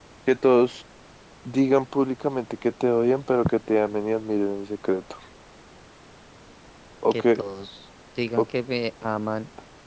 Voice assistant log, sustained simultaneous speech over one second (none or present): none